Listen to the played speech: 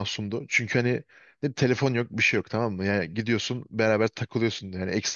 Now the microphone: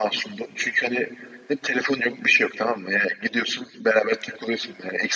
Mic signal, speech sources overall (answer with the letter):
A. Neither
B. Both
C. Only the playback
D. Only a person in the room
C